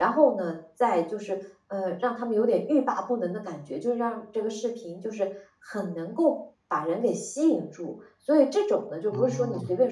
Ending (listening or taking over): listening